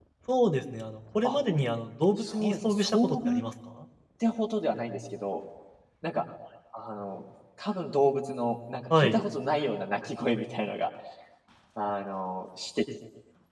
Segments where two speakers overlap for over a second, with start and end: 2.2-3.4

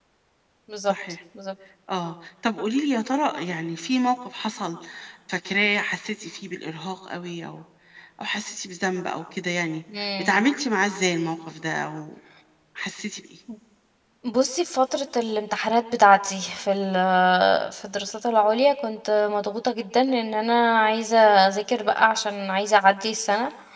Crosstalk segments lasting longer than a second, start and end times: none

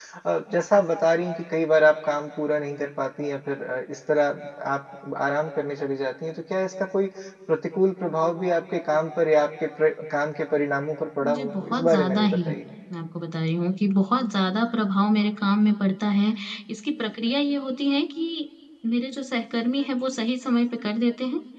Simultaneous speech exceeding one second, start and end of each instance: 11.2-12.5

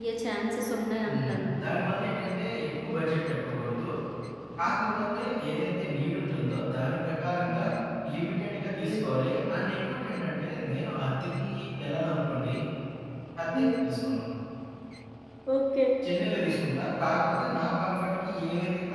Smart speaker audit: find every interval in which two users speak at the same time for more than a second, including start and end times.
none

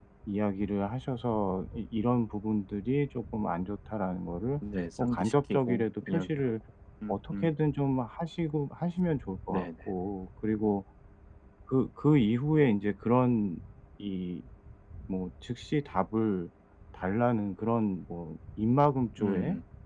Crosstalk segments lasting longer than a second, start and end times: 5.0-6.5

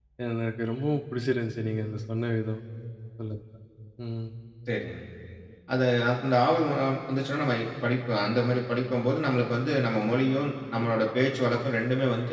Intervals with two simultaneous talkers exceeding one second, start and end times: none

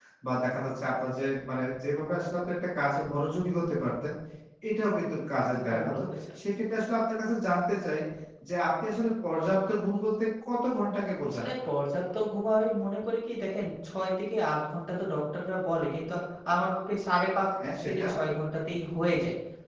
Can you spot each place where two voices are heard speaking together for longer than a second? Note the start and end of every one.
none

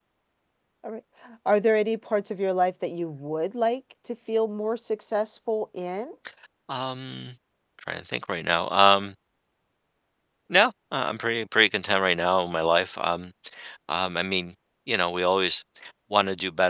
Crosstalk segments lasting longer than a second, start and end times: none

